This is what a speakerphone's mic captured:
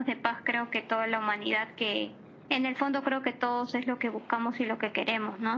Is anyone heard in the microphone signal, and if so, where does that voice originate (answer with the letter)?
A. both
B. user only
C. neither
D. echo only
D